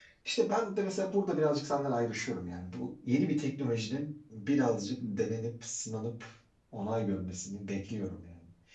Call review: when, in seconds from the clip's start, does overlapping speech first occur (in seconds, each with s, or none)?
none